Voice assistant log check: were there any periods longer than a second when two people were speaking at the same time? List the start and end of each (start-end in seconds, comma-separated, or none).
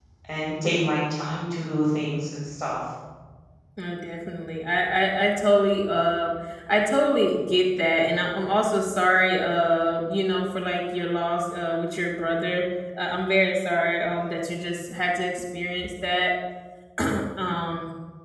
none